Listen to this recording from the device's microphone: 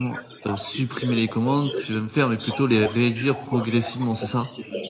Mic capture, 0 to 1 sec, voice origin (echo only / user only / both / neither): both